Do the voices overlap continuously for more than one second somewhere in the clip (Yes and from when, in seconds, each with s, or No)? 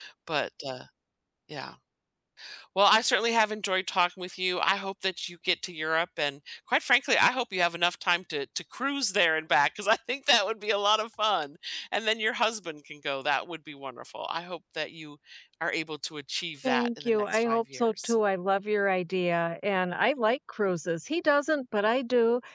Yes, from 16.6 s